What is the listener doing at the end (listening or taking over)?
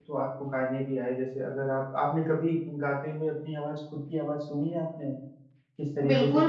taking over